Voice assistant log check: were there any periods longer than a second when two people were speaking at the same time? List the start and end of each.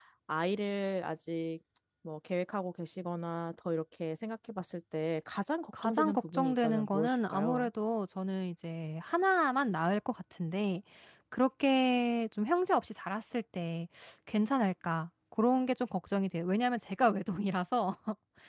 5.8-7.7

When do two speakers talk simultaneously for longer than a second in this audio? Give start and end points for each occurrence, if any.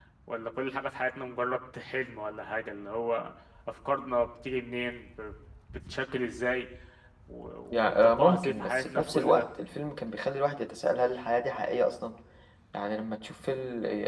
7.7-9.4

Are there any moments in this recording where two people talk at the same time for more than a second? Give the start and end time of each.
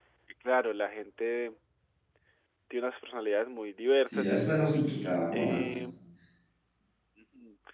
4.0-5.9

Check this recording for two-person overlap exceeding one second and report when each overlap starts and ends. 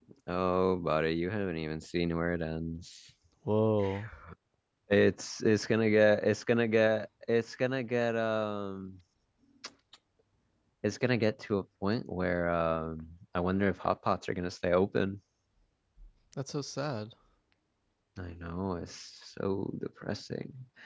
none

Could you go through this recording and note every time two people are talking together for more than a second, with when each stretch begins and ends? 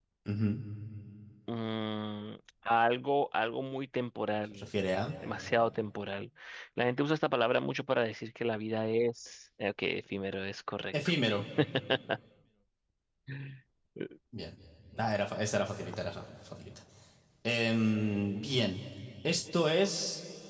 none

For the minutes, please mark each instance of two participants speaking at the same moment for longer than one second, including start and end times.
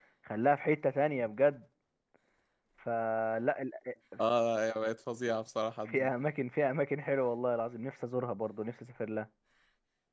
none

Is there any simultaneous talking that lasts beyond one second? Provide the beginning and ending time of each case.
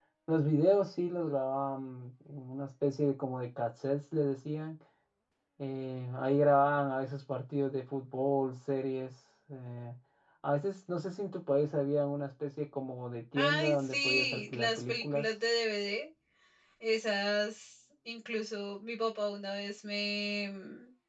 13.3-15.2

